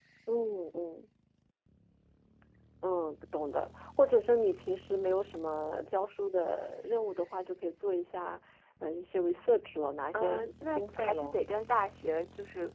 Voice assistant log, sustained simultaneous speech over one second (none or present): present